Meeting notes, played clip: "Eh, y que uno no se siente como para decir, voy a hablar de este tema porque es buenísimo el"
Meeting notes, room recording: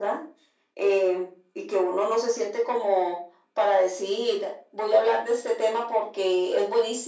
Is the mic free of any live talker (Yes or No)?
Yes